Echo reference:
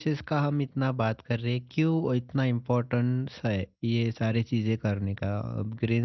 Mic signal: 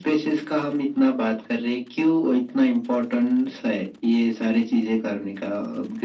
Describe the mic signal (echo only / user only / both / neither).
echo only